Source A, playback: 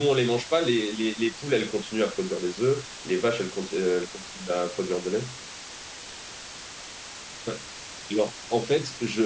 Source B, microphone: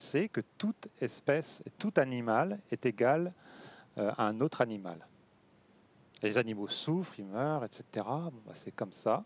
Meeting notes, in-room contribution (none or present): present